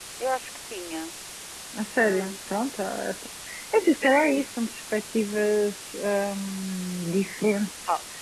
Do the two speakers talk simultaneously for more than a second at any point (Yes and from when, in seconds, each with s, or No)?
No